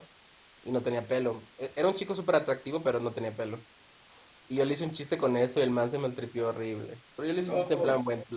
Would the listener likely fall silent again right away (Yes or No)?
Yes